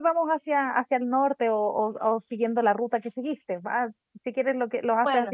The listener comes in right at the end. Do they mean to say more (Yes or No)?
No